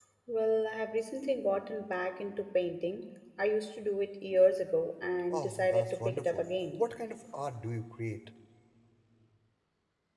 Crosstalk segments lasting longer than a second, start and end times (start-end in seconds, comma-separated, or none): 5.3-6.8